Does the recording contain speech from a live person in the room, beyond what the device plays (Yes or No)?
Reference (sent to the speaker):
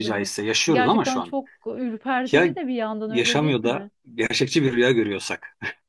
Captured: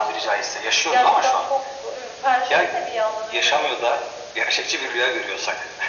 No